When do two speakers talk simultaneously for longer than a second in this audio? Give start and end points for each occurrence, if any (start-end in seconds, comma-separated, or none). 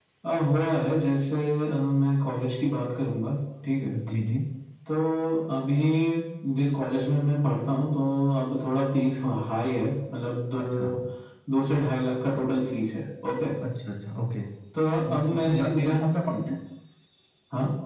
15.0-16.4